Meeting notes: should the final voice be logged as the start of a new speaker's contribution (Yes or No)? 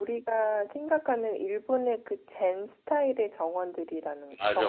Yes